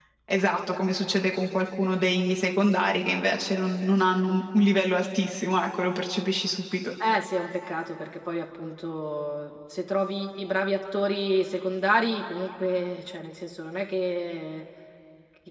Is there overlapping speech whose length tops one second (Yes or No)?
No